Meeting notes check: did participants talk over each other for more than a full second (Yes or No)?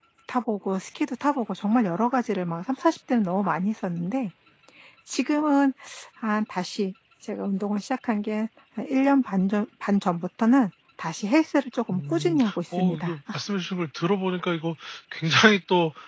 Yes